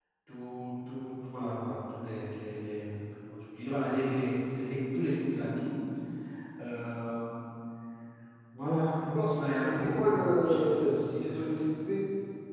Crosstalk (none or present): present